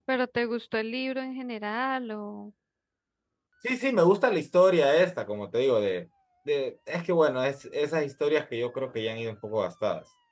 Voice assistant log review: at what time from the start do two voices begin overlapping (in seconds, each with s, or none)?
none